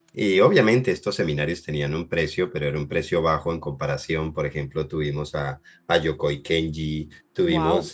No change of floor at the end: Yes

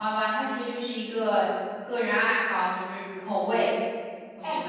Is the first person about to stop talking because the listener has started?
Yes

